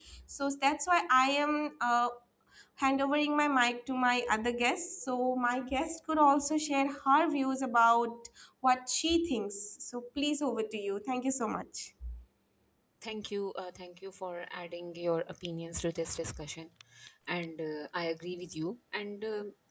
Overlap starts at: none

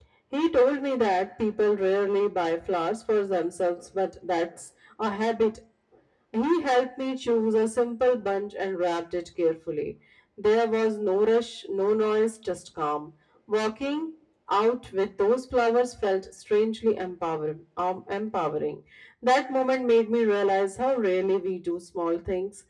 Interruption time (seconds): none

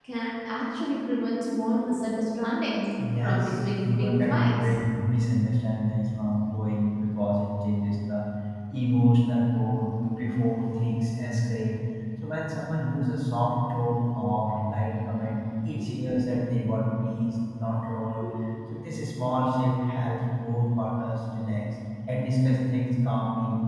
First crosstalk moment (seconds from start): 3 s

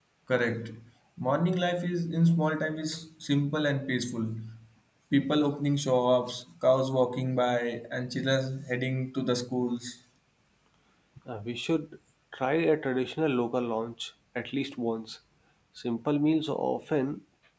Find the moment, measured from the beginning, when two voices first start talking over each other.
none

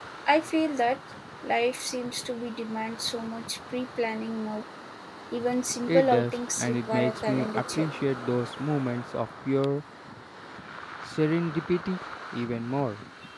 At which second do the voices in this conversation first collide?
6 s

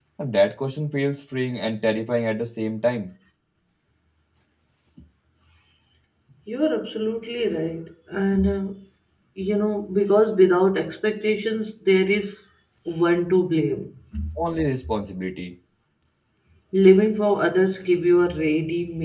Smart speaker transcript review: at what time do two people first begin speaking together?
none

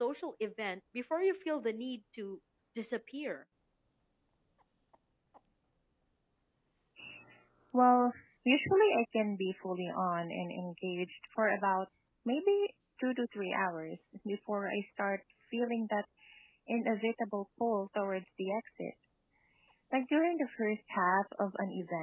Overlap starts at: none

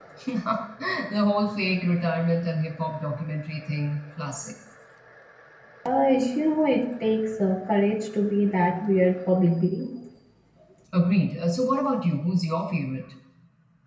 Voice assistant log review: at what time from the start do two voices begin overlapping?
none

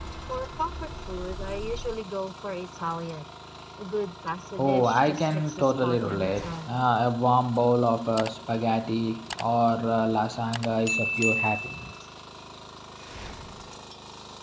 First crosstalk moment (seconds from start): 5 s

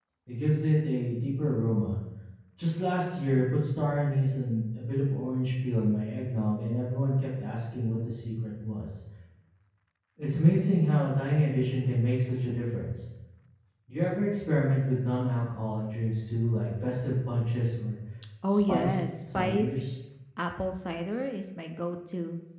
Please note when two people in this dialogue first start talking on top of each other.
18 s

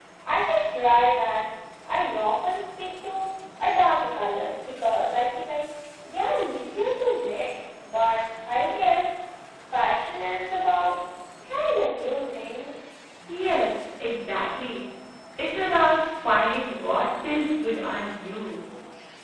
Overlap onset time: none

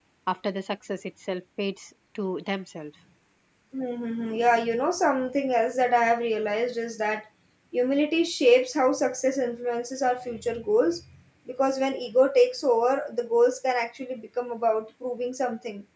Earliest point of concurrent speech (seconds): none

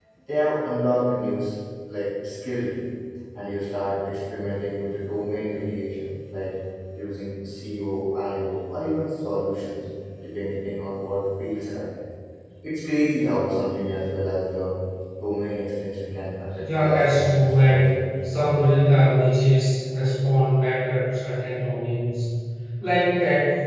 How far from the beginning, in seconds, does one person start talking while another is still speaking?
17 s

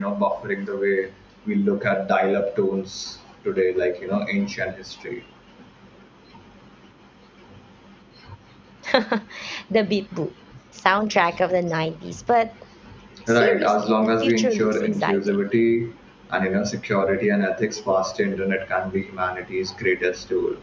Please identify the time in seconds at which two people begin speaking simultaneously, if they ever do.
13 s

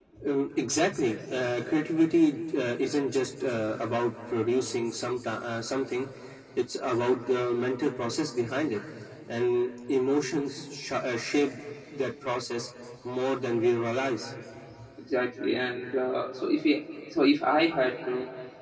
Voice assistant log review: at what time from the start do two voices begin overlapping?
none

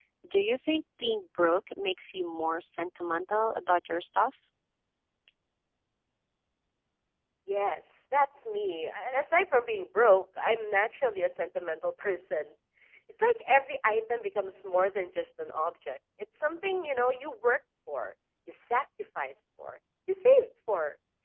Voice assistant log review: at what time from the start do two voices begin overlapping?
none

